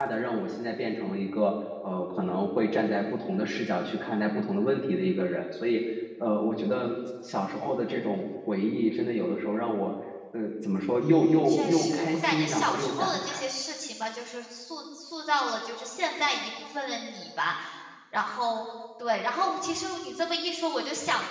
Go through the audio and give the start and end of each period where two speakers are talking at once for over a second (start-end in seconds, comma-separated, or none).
11.0-13.4